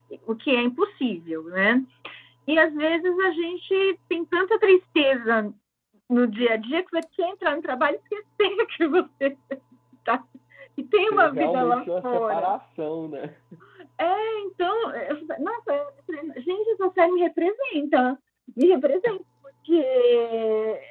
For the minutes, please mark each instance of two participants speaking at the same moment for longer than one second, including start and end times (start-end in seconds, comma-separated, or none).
11.1-12.5